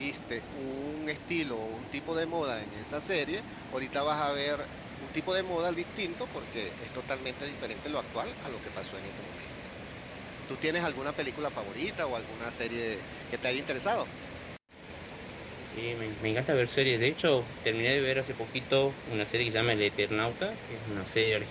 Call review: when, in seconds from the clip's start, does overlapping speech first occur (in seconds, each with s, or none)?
none